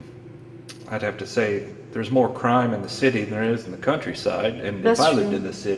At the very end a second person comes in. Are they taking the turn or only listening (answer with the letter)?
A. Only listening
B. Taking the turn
A